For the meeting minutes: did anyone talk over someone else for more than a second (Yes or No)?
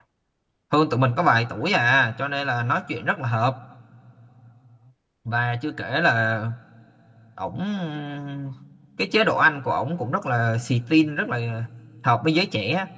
No